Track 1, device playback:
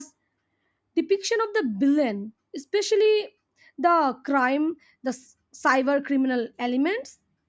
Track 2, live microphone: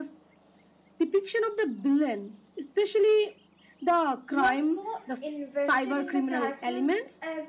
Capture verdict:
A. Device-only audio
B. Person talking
B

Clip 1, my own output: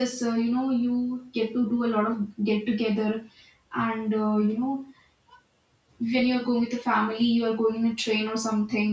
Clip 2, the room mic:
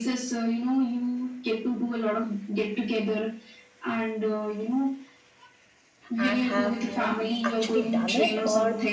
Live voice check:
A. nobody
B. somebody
B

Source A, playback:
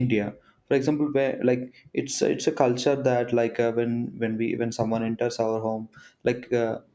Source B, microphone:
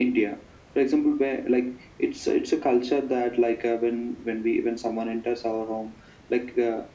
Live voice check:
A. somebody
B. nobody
B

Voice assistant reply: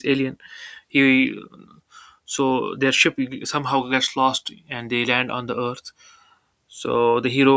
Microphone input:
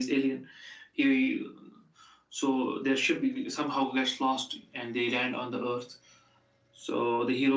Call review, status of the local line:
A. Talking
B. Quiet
B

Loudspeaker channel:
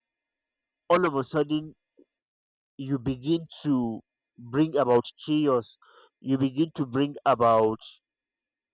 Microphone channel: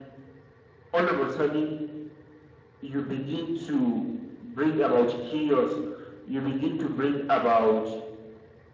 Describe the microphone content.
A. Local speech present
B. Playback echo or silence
B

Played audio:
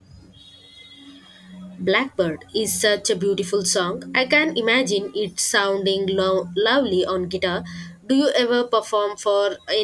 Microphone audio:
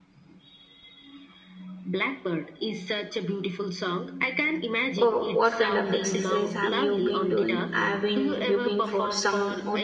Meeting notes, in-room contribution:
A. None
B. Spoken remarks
B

